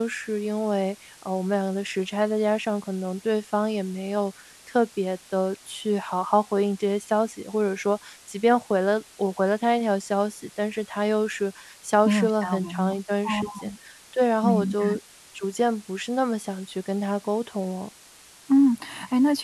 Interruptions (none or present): present